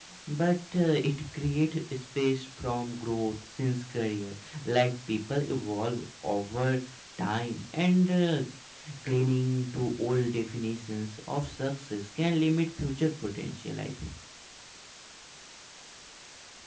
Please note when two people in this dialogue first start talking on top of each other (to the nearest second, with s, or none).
none